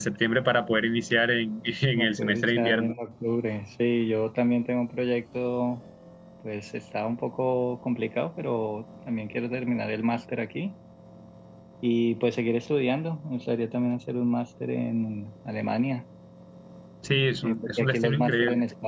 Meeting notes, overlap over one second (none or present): present